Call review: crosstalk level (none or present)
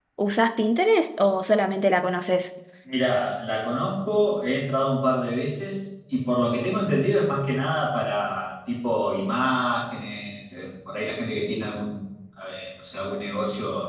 none